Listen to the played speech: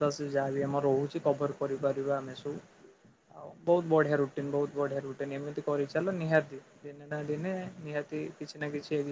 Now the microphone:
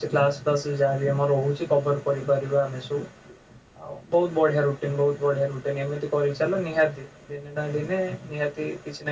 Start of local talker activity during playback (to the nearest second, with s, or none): none